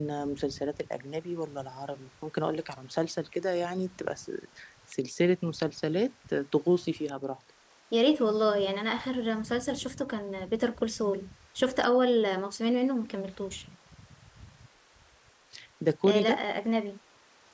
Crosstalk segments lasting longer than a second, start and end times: none

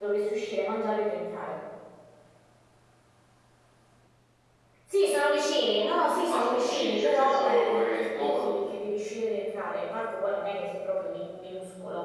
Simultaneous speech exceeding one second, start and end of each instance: 5.8-8.6

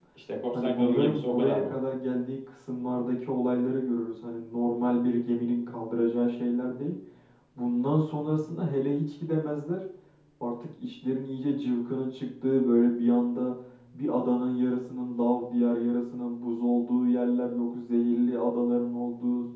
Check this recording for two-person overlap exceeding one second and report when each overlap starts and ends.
0.5-1.8

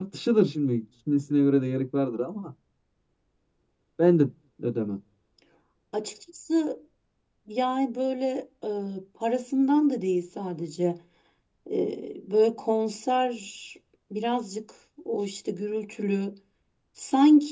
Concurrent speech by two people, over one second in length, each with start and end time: none

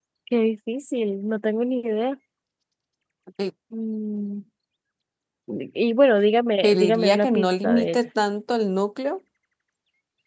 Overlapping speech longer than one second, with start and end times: 6.6-8.0

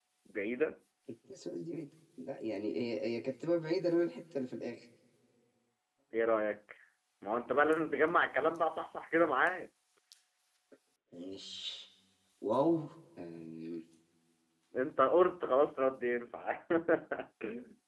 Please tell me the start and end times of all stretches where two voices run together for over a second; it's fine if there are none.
none

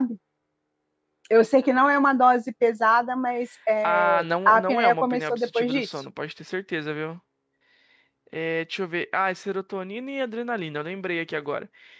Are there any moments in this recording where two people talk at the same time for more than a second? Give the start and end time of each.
3.8-5.9

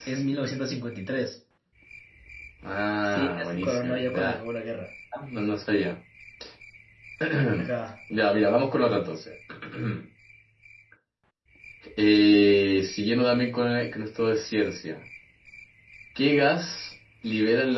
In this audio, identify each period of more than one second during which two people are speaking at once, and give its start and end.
3.0-4.4

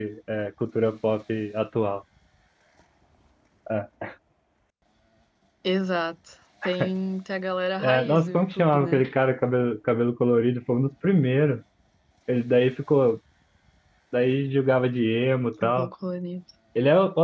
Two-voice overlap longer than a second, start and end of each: 7.8-9.0

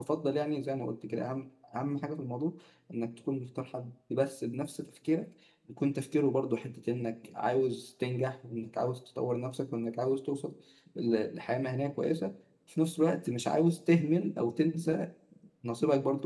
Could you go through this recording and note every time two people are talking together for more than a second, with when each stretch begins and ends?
none

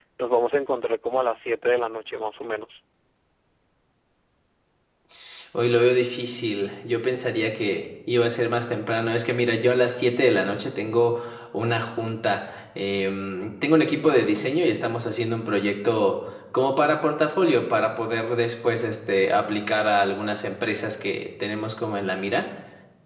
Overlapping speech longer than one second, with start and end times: none

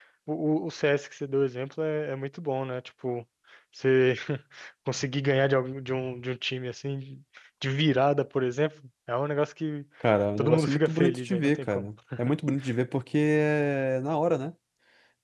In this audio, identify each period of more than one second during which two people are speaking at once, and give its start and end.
10.4-11.8

